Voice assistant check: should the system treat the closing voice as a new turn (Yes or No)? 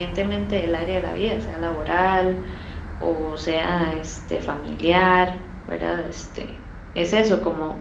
No